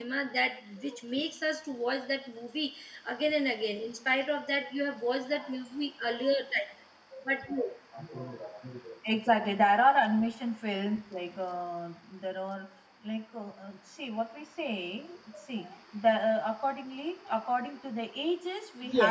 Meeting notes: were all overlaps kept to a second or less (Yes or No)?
Yes